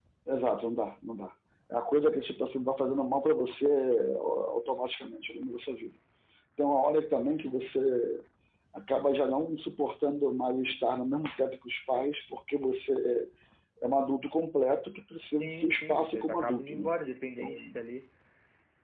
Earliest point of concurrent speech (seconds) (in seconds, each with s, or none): 15.3 s